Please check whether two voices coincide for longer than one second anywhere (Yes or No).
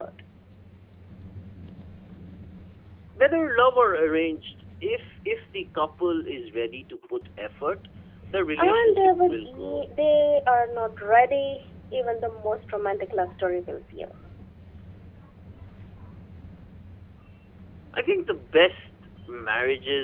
Yes